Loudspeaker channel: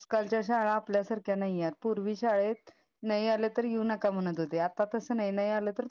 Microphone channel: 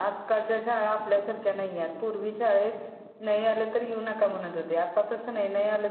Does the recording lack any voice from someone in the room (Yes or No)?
Yes